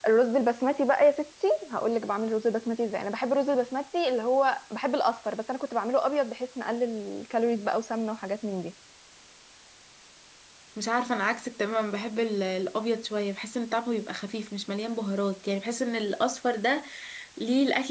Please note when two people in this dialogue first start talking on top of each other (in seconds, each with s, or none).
none